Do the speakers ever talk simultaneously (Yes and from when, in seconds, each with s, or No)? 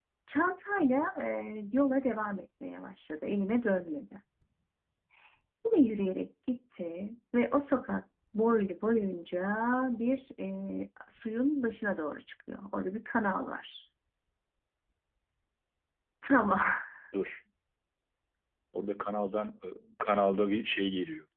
No